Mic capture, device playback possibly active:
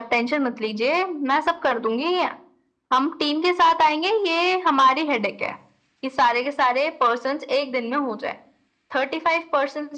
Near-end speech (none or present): none